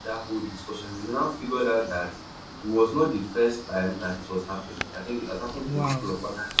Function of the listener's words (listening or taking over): listening